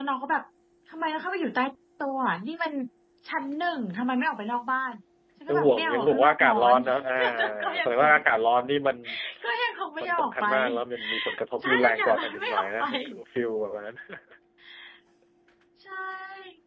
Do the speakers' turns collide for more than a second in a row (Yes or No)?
Yes